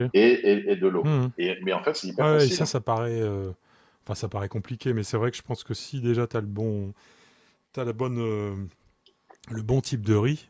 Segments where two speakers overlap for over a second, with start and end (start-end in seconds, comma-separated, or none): none